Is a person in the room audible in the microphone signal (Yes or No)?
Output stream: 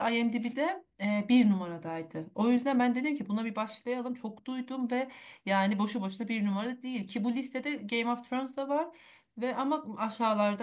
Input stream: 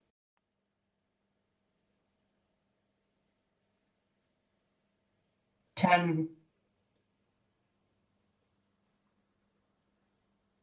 Yes